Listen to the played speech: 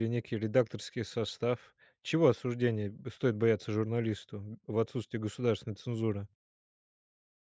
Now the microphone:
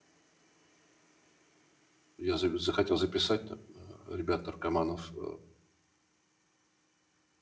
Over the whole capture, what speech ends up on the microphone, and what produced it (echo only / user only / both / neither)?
user only